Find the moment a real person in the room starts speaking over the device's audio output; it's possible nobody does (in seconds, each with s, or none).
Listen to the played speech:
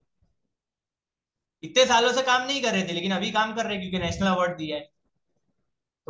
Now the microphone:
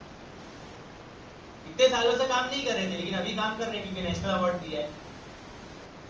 none